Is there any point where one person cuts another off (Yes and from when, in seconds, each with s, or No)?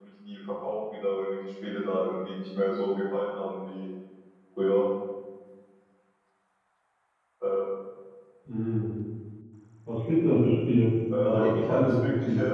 Yes, from 11.1 s